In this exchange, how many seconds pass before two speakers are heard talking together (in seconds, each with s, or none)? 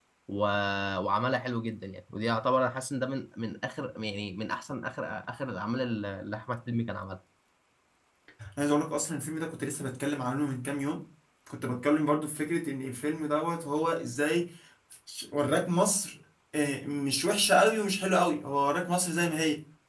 none